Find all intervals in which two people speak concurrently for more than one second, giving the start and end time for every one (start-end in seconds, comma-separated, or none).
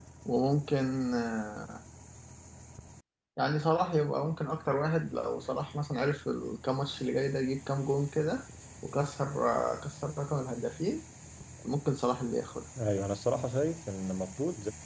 none